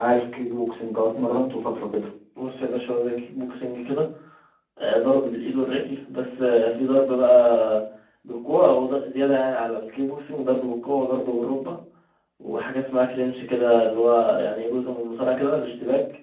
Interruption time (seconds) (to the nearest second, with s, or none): none